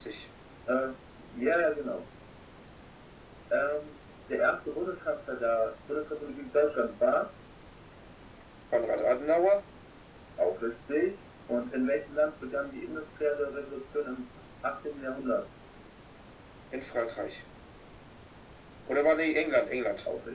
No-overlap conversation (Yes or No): Yes